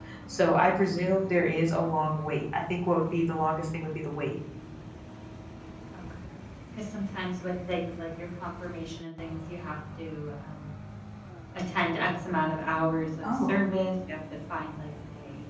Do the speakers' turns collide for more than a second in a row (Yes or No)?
No